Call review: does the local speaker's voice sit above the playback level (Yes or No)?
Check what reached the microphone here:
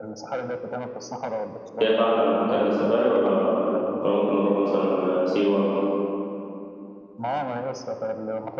Yes